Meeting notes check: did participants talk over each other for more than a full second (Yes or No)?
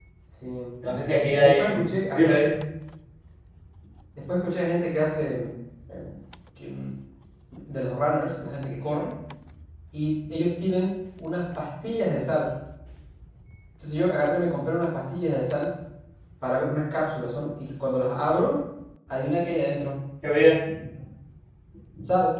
Yes